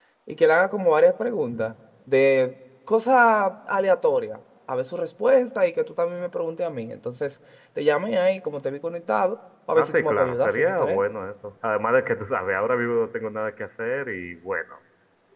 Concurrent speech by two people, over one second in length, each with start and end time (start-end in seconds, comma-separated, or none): 9.8-11.0